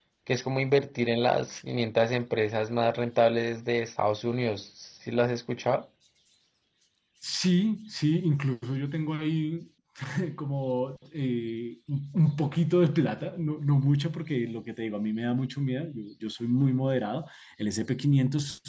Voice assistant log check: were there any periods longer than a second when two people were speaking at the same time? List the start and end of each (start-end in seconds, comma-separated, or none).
none